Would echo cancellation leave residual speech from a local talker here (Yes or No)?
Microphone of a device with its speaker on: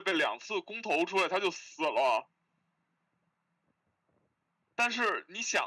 No